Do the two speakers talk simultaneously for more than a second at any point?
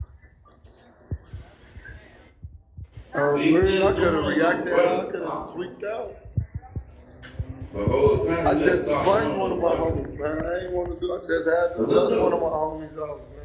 Yes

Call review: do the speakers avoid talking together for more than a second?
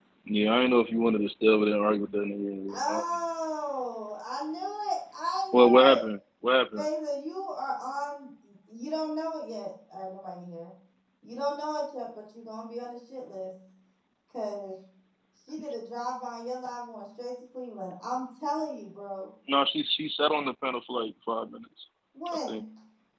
Yes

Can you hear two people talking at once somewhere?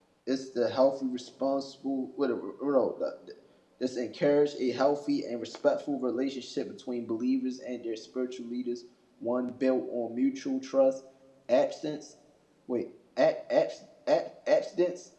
No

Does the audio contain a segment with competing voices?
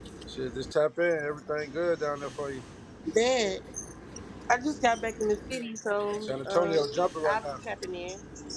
Yes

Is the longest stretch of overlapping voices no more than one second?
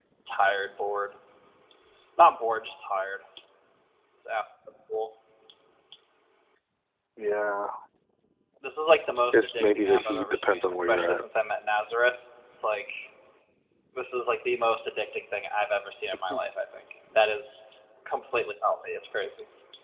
No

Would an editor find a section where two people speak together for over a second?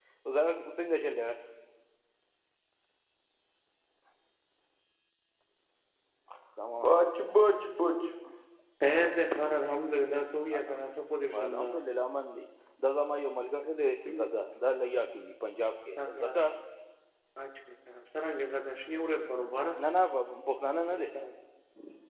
No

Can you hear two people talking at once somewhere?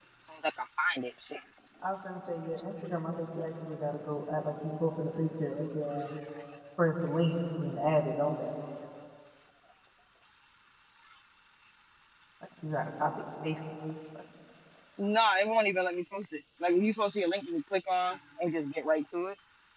No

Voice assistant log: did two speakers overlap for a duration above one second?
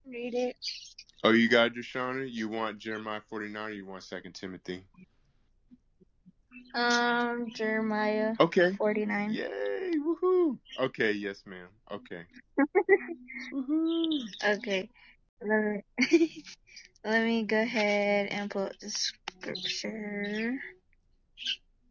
No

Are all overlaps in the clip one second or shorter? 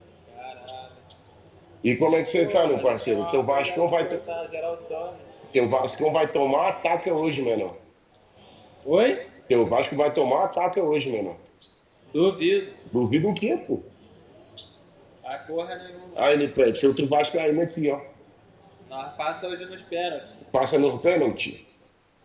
No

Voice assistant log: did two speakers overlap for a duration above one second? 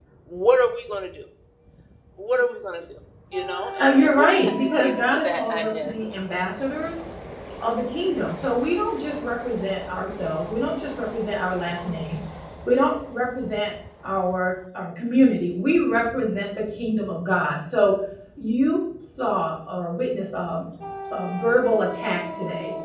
Yes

